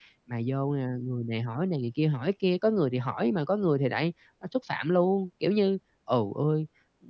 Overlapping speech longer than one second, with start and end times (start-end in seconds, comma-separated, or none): none